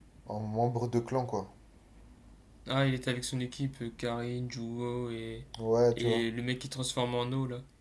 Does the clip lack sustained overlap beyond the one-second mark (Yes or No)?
Yes